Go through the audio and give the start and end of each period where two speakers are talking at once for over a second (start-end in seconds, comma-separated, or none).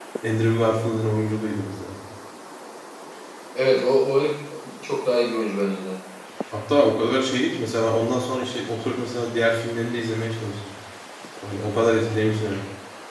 none